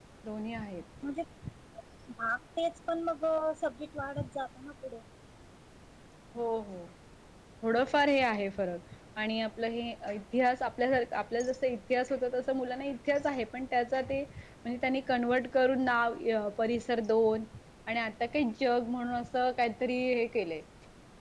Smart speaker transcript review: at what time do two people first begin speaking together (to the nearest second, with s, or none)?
none